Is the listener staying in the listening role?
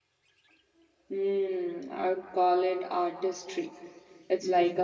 Yes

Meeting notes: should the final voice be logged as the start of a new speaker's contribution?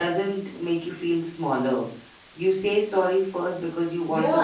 Yes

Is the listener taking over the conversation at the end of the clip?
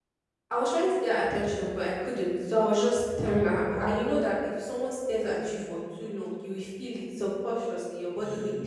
No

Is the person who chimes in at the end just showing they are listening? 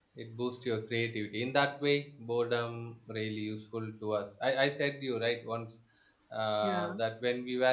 Yes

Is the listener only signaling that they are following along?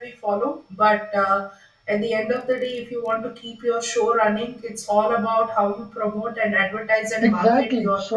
No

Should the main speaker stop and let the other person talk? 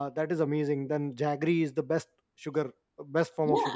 Yes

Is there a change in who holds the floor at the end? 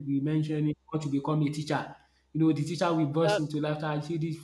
No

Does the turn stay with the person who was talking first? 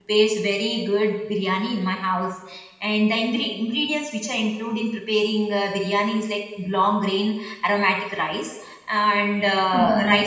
Yes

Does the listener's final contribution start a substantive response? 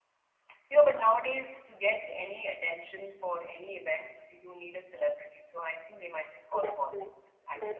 Yes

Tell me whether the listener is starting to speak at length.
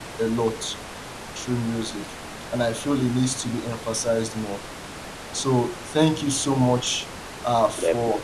No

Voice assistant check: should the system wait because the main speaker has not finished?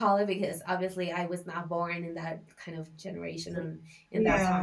Yes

